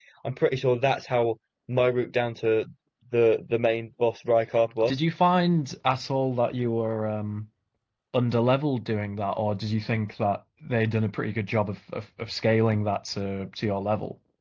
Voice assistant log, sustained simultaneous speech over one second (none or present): none